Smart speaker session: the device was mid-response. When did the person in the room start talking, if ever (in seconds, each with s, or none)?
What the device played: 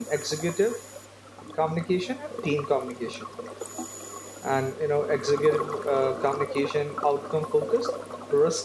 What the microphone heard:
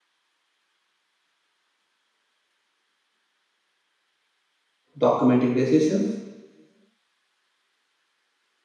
5.0 s